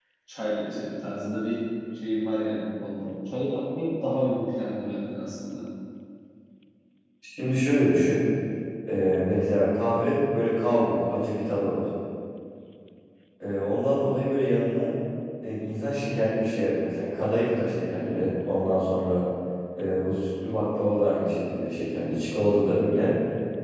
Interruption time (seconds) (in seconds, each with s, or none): none